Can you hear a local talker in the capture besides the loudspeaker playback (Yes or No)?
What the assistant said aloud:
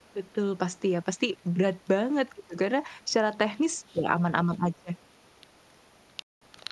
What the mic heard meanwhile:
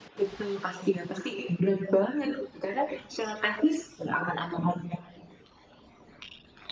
No